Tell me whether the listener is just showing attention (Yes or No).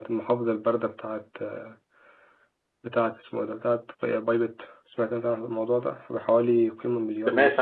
No